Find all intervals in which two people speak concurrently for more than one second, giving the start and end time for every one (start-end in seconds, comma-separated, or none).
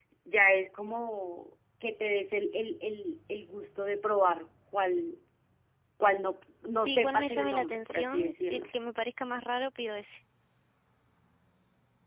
6.7-8.7